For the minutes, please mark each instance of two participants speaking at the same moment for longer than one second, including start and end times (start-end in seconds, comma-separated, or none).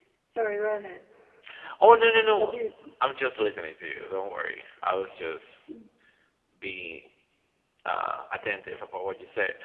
none